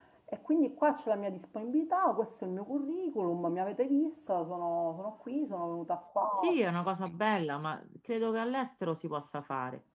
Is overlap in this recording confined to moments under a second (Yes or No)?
Yes